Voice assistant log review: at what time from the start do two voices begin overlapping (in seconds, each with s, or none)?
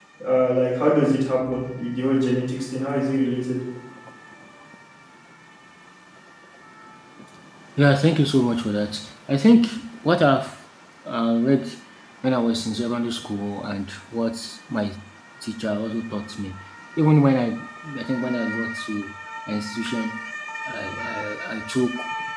none